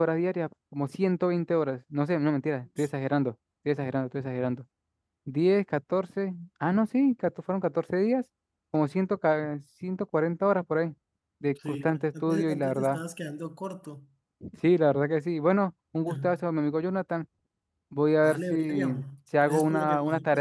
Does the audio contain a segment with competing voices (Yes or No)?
Yes